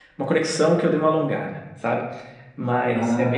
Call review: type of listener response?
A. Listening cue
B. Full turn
A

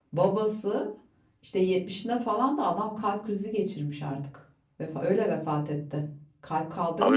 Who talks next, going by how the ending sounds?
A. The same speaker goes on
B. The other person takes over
B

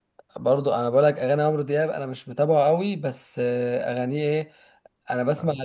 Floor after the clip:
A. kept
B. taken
A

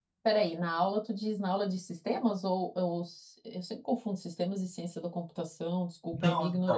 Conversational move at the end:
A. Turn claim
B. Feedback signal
A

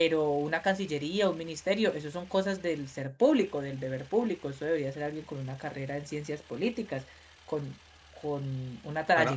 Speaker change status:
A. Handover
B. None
B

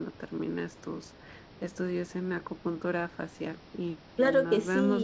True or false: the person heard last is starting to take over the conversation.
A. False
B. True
B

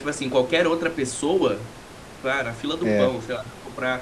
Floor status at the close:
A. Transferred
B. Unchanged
B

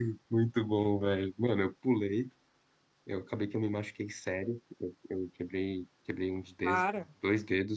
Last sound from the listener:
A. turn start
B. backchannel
B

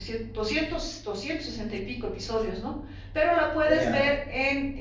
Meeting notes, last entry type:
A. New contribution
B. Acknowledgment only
B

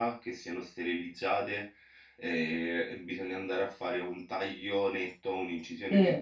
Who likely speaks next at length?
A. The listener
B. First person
B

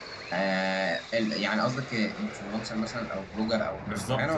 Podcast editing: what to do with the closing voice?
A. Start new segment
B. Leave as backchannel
A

